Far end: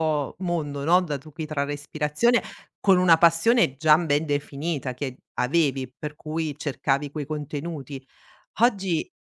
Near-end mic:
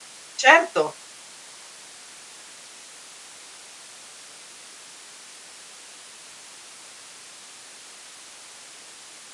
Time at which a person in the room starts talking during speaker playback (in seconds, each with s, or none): 0.3 s